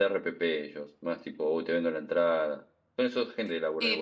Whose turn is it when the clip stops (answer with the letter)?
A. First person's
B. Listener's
B